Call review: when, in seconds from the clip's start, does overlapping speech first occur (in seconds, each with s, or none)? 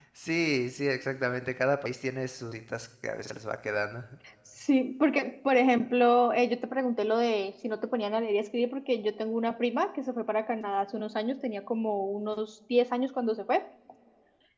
none